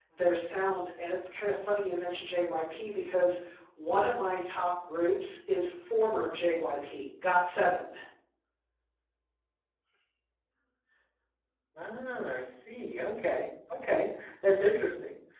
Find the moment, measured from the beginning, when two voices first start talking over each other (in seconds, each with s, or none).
none